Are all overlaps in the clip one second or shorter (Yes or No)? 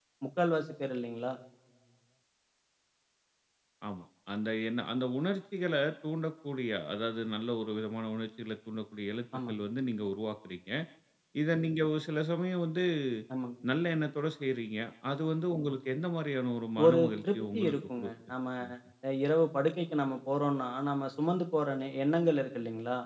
No